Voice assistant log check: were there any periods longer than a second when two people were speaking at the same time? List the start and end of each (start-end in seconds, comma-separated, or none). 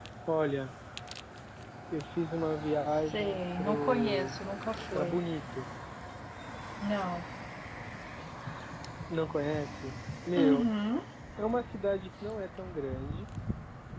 2.9-4.4